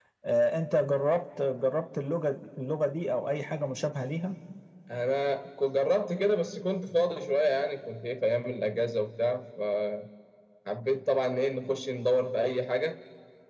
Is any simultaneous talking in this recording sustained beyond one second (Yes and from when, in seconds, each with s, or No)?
No